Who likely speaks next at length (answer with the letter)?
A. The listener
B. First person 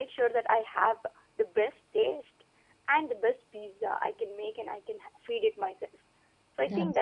B